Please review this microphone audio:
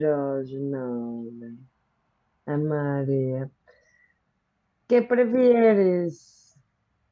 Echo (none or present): none